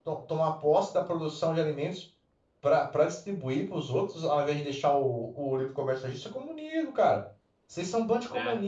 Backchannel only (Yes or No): Yes